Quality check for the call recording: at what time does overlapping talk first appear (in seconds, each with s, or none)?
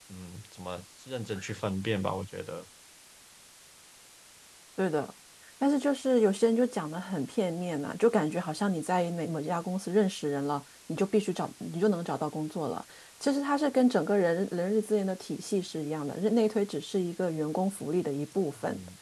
none